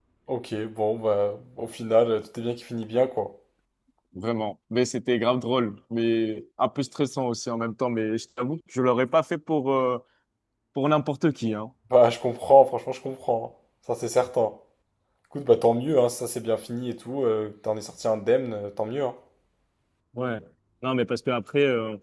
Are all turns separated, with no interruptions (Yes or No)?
Yes